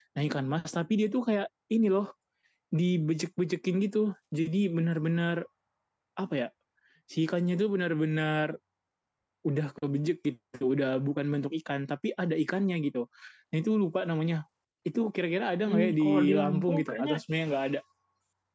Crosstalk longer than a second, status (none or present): present